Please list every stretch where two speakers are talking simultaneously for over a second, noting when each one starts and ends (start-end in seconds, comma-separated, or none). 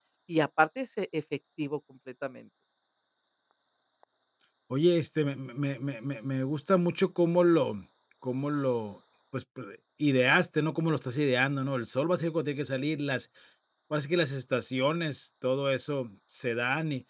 none